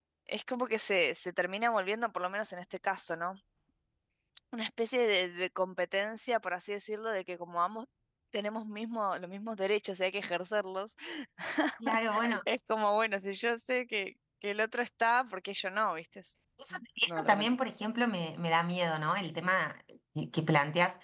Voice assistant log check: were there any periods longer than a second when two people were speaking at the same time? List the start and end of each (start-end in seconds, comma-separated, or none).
none